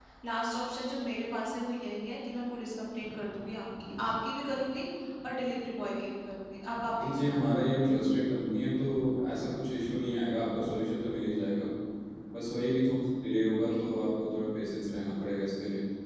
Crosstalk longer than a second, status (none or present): none